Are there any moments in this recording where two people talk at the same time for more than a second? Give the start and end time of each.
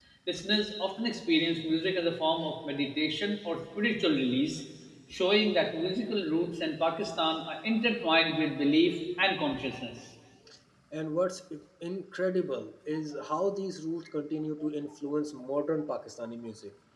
none

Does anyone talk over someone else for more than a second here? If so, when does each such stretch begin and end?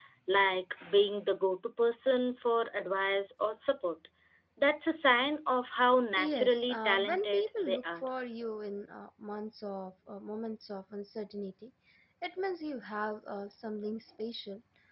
6.2-8.1

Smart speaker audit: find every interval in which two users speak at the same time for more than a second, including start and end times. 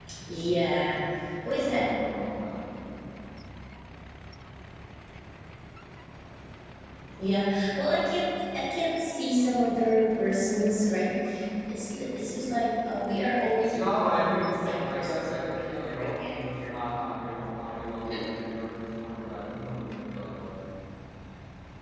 13.6-16.7

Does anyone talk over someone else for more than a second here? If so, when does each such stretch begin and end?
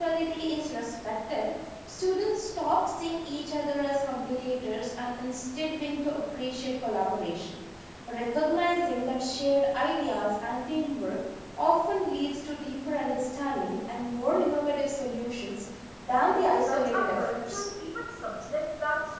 16.3-17.7

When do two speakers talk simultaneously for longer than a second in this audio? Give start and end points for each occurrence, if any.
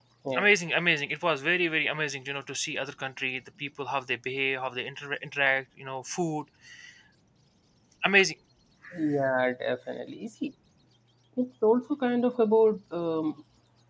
none

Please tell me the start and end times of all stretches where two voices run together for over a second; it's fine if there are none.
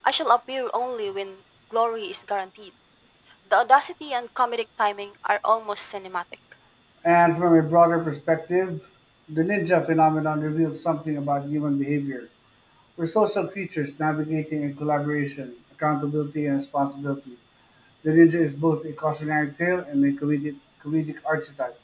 none

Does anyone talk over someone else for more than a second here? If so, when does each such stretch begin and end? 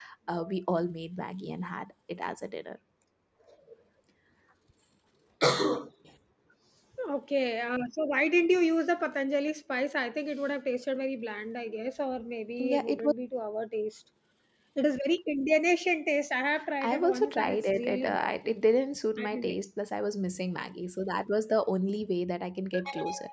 16.8-18.3

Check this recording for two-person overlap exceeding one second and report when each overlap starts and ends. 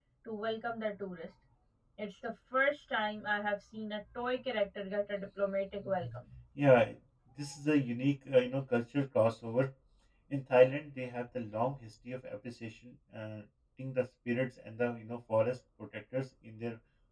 none

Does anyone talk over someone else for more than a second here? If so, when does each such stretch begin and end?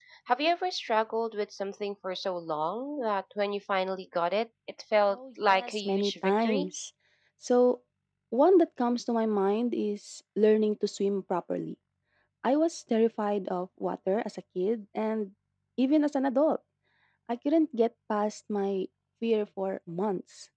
5.1-6.7

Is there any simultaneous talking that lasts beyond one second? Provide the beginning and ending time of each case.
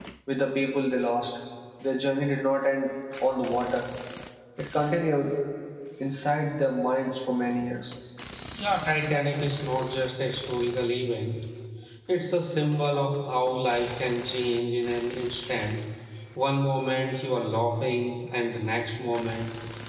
none

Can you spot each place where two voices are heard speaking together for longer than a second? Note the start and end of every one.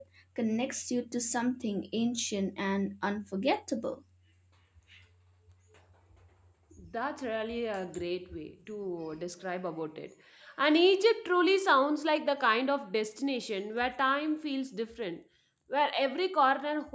none

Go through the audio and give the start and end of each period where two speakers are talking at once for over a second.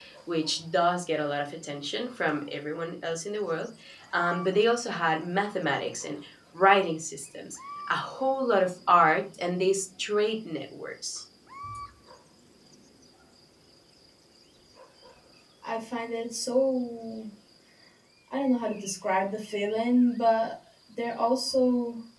none

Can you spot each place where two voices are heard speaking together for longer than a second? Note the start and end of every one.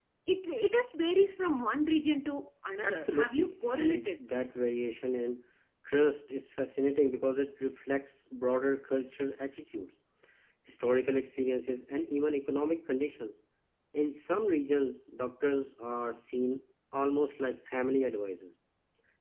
2.8-4.1

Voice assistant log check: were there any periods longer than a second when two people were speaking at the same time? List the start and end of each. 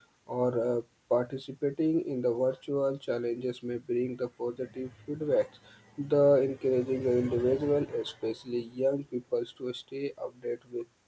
none

